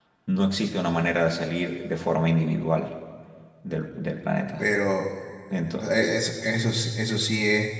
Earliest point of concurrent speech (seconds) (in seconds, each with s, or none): none